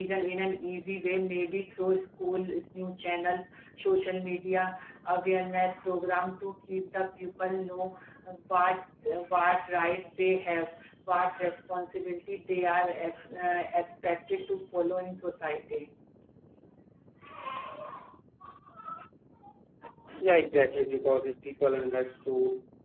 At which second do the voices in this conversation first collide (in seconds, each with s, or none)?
none